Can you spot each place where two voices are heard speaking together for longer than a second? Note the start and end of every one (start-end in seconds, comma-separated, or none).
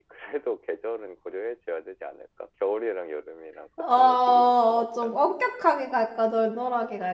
4.0-5.3